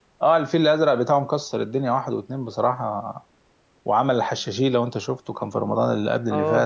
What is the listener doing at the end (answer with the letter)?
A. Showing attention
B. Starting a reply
B